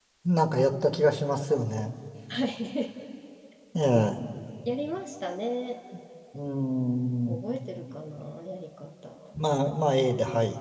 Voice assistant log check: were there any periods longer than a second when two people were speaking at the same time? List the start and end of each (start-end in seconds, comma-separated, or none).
none